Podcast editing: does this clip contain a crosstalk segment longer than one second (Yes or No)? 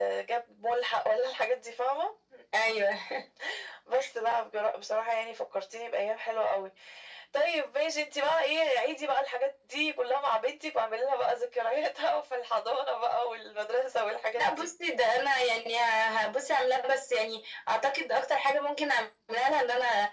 No